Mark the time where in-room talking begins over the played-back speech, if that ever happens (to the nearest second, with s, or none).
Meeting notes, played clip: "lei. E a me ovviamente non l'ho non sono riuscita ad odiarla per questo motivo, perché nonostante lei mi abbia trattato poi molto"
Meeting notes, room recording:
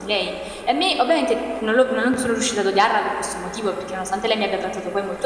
none